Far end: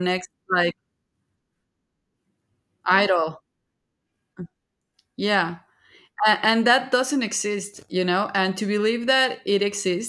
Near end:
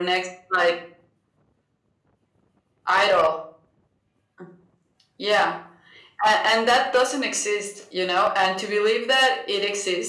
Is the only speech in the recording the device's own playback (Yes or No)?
Yes